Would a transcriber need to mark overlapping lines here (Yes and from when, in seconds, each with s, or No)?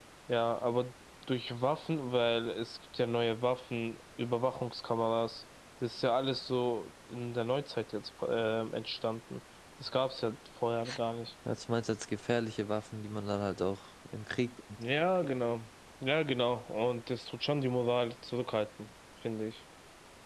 No